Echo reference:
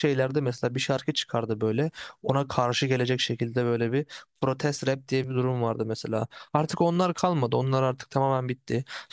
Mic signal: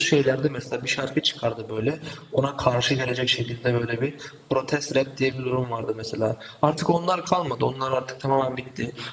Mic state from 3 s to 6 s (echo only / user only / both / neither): echo only